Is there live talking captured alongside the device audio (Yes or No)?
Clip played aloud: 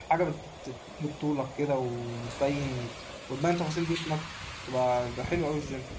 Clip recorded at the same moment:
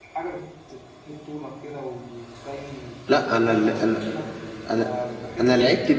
Yes